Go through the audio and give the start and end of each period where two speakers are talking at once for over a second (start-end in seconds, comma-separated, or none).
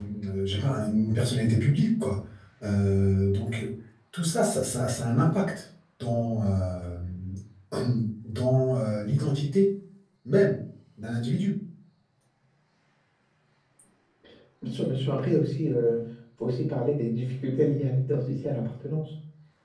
none